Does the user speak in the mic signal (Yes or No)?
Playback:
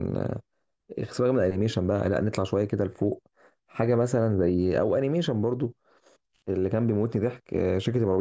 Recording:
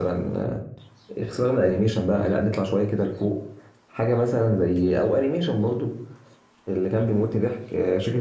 No